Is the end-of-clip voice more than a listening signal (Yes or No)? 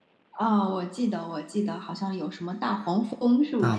Yes